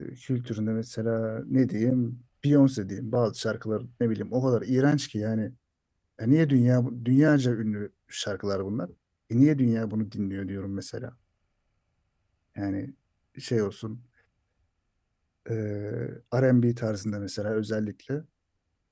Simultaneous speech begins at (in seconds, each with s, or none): none